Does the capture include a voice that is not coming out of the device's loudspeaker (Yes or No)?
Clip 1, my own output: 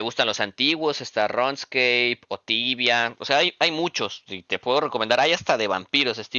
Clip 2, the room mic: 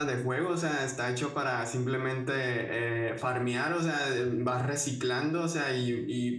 Yes